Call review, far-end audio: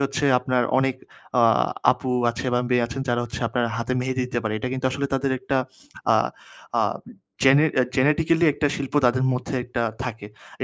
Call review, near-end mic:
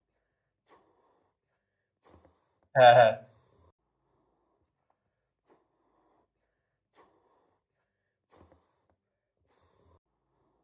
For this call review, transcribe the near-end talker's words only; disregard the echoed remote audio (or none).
হ্যাঁ, হ্যাঁ।